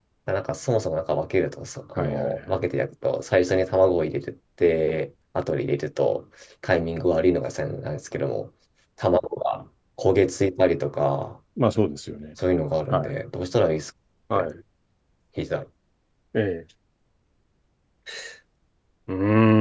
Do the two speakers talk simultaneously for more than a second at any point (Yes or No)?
No